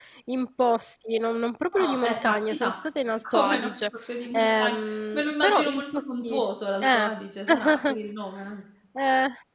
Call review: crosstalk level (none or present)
present